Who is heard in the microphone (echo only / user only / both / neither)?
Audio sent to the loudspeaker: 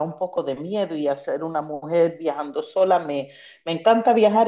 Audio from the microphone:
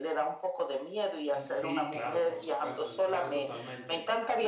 both